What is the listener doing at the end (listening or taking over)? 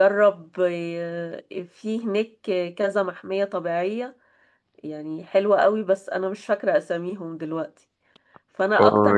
taking over